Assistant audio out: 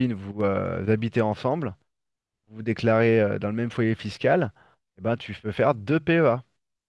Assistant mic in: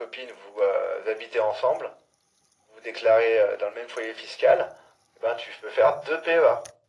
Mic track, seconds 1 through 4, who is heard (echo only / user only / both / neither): echo only